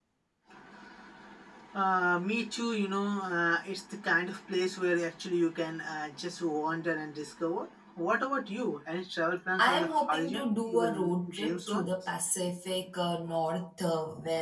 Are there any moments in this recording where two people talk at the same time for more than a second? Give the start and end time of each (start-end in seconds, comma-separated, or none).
9.6-11.8